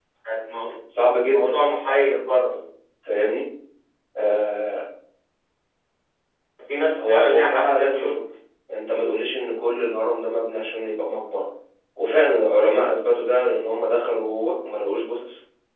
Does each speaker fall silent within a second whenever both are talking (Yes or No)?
No